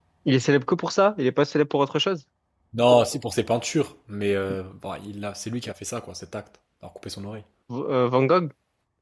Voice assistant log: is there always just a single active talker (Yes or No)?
Yes